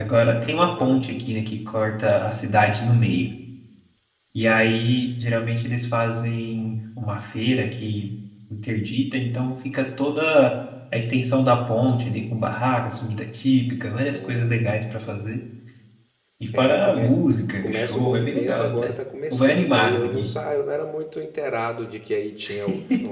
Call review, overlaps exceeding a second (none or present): present